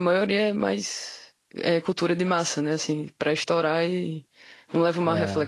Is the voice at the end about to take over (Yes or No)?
No